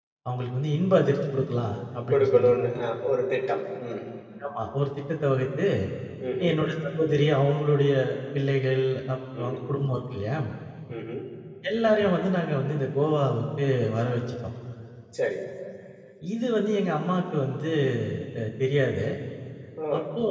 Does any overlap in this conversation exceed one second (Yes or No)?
No